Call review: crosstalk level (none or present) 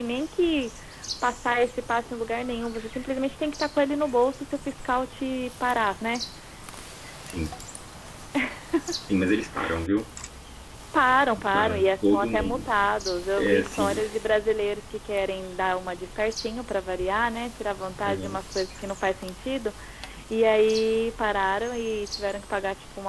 present